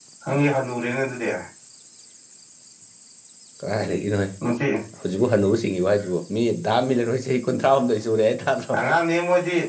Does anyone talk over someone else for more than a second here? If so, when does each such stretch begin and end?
none

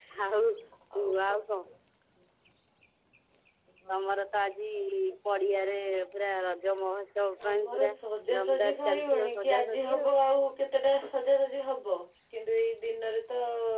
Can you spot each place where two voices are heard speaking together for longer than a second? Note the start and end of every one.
8.4-10.1

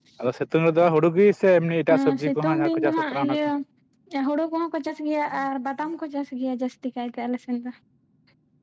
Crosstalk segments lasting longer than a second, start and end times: 1.9-3.4

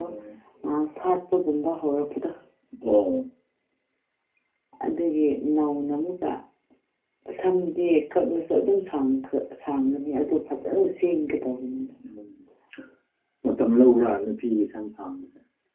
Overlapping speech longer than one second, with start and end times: none

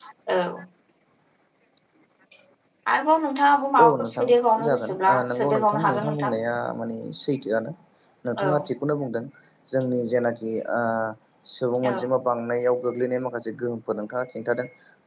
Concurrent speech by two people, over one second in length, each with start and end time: 4.7-6.3

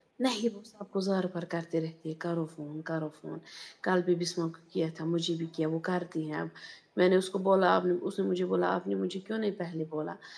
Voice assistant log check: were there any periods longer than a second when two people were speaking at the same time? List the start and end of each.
none

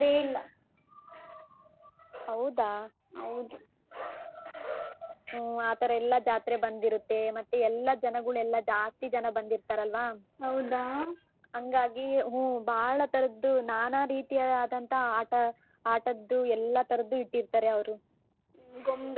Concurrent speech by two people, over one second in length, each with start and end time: none

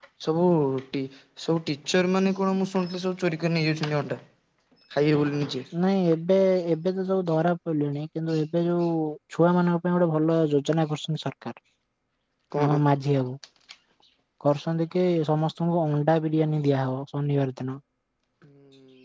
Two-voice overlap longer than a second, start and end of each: none

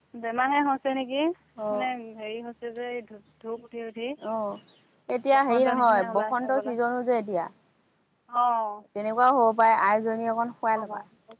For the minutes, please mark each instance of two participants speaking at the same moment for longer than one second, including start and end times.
5.3-6.7

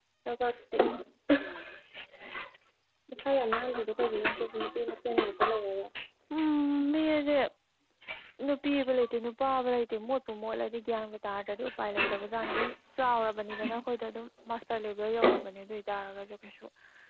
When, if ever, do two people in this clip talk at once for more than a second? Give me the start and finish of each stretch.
none

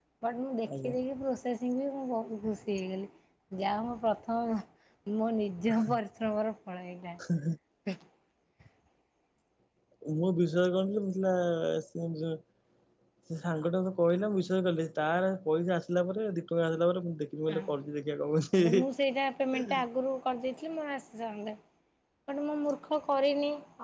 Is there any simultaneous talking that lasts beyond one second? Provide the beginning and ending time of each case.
none

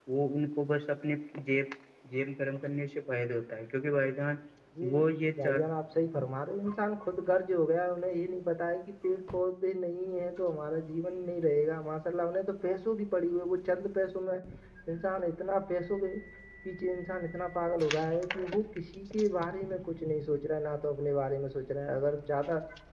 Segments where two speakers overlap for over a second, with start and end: none

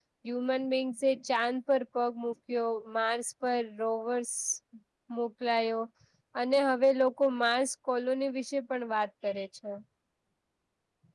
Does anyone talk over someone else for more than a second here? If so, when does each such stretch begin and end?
none

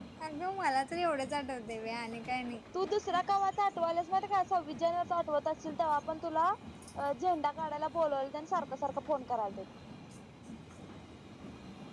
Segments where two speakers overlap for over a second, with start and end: none

